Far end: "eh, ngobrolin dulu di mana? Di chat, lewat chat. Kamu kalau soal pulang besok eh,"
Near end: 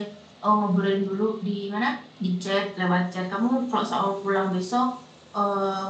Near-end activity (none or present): none